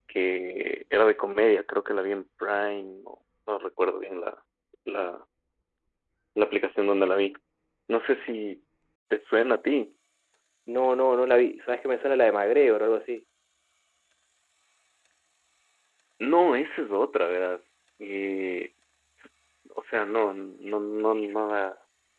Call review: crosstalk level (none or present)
none